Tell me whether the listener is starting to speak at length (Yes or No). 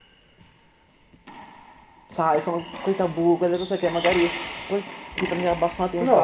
Yes